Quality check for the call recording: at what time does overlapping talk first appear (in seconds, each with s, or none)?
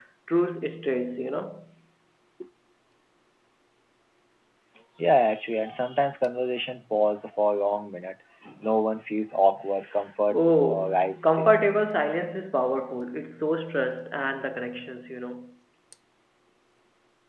10.3 s